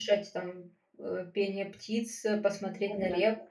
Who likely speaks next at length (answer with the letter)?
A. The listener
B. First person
B